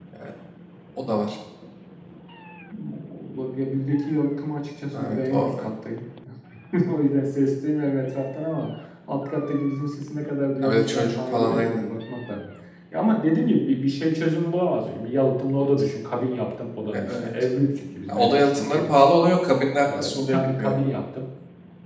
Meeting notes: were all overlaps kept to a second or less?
No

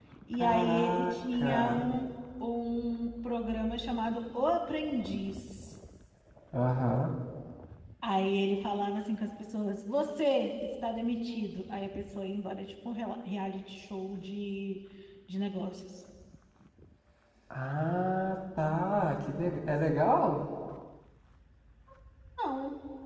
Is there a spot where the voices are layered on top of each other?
Yes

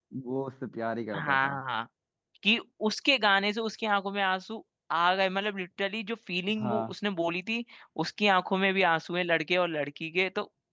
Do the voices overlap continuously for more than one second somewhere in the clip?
No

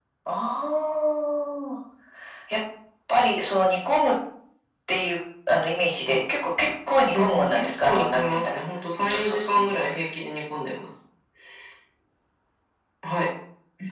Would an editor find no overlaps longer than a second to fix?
No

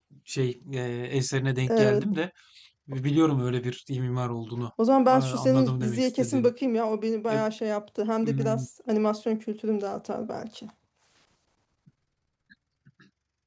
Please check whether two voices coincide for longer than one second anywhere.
Yes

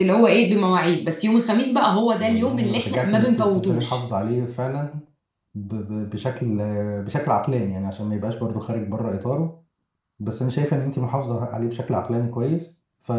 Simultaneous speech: Yes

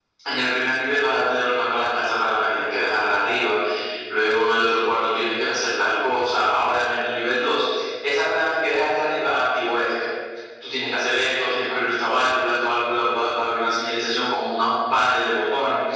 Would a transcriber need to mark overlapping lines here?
No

